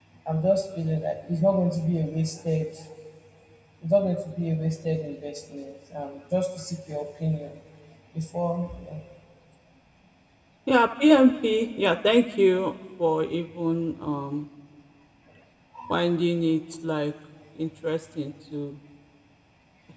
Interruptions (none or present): none